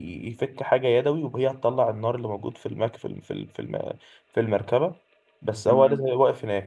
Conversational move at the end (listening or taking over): listening